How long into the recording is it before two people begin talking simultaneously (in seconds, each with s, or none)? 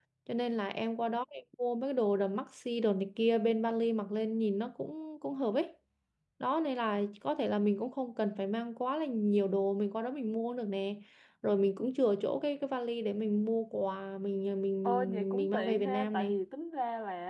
14.8 s